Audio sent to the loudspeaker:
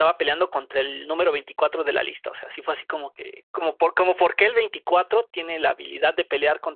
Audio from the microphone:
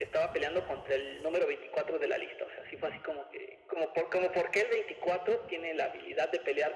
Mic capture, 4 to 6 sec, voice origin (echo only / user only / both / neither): echo only